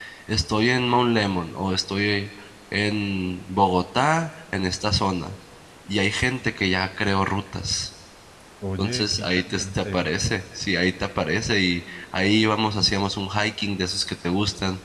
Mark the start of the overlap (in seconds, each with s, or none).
8.8 s